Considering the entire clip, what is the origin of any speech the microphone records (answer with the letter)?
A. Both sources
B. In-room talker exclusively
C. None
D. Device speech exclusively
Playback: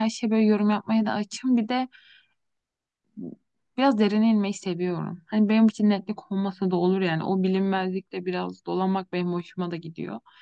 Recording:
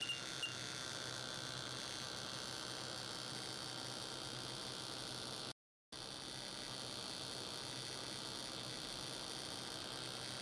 C